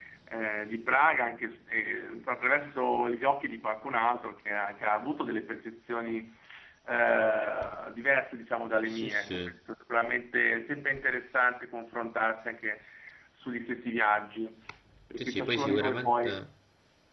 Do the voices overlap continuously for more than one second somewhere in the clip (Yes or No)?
Yes